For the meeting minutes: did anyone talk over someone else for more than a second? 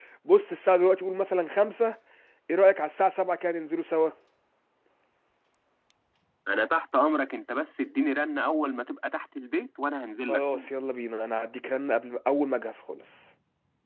No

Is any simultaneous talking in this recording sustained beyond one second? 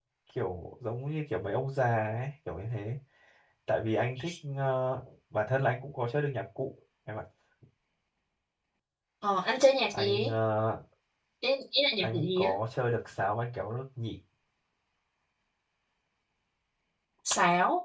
No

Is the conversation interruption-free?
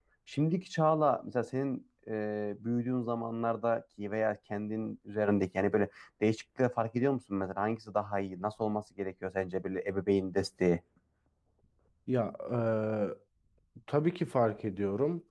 Yes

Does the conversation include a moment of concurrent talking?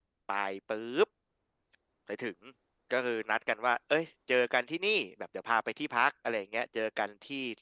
No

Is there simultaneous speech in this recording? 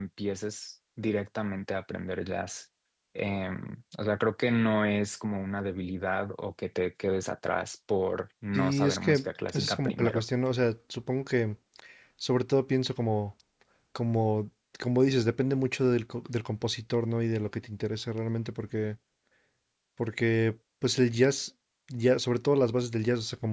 Yes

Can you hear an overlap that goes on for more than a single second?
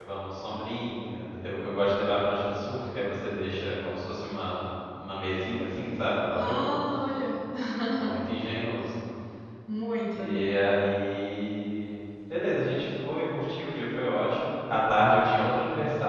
No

